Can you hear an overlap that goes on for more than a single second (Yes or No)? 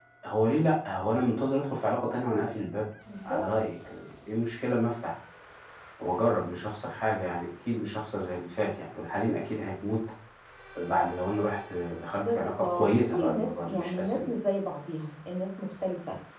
Yes